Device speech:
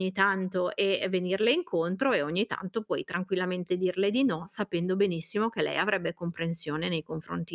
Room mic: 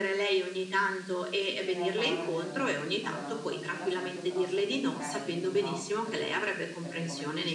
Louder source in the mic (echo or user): echo